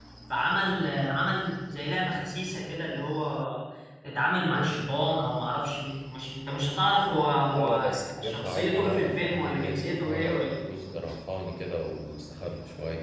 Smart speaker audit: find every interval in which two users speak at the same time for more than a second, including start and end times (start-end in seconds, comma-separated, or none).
7.5-10.5